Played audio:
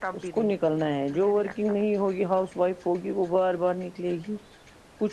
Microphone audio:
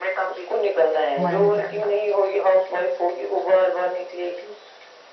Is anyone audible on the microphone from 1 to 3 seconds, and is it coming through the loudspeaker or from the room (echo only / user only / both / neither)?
both